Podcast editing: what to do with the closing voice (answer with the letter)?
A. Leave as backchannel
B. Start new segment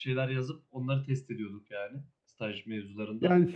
B